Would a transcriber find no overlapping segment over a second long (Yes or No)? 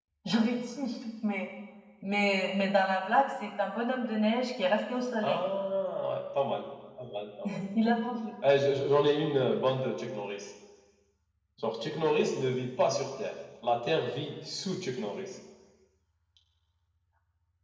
Yes